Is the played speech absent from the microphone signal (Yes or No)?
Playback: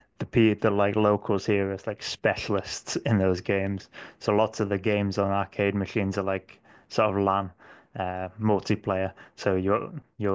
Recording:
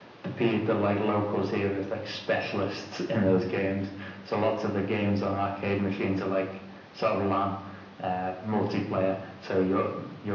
No